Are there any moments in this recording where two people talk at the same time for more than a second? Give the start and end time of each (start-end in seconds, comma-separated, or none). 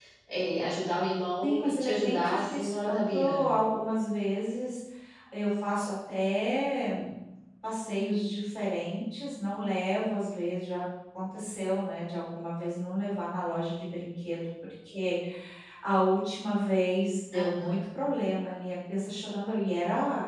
1.4-3.4